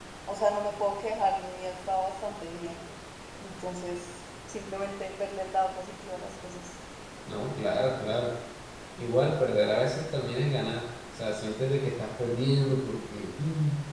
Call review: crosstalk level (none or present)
none